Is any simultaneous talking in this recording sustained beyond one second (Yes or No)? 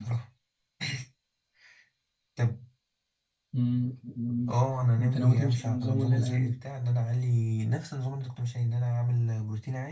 Yes